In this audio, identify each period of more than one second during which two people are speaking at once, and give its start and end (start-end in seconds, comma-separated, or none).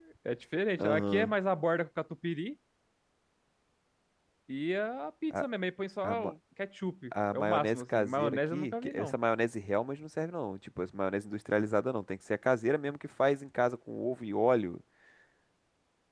7.3-9.1